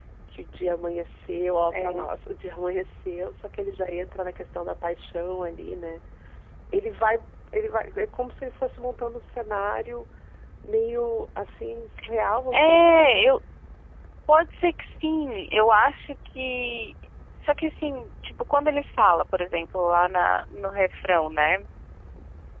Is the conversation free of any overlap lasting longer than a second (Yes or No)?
Yes